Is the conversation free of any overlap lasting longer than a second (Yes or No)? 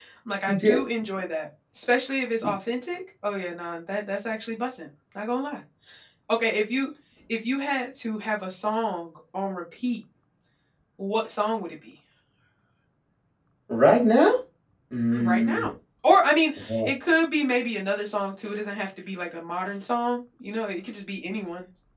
Yes